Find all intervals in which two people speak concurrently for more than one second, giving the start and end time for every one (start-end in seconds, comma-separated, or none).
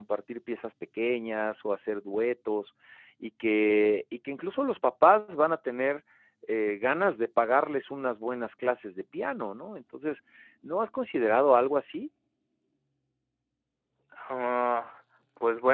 none